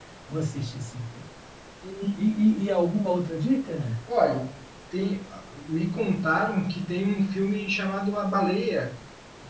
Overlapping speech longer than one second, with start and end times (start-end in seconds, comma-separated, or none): none